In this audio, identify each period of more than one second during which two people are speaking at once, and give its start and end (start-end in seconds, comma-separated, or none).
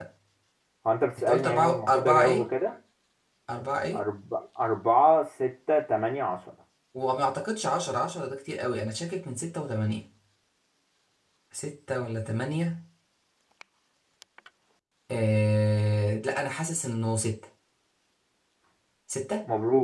1.2-2.5